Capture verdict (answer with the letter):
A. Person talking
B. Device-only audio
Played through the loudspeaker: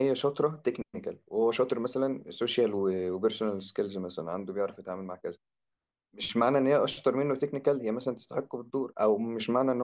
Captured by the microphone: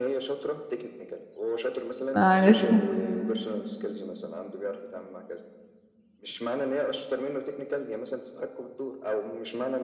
A